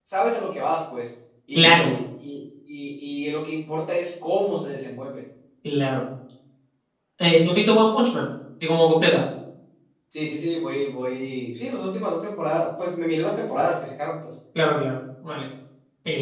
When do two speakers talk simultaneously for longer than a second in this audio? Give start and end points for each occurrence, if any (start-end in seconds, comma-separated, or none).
none